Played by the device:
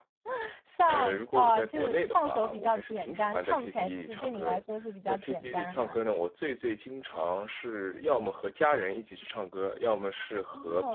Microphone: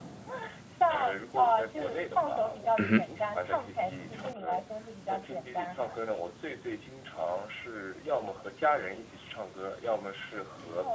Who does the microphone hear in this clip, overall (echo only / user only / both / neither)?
both